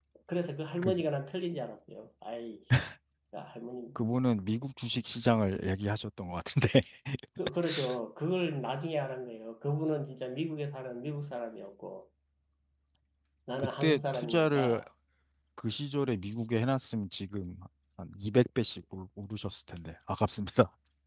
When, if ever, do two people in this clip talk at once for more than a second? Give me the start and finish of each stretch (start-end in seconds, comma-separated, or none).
13.6-14.8